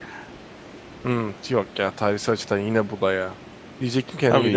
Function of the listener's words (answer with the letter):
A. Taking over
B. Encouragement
B